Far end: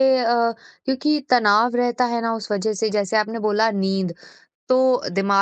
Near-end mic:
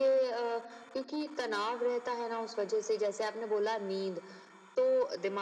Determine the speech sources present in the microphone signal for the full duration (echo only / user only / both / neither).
echo only